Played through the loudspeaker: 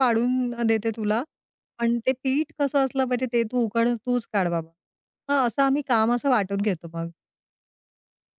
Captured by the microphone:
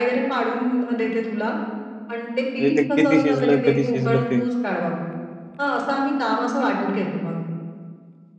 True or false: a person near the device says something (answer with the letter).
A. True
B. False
A